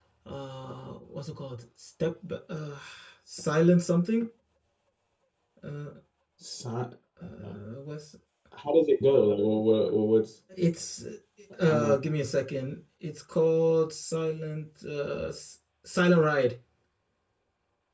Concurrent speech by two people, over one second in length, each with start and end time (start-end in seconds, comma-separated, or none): none